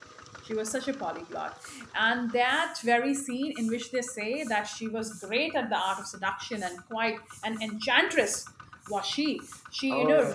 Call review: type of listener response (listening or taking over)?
listening